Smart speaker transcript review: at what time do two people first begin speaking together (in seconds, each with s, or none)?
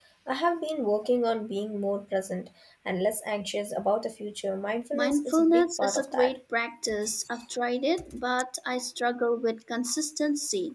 4.9 s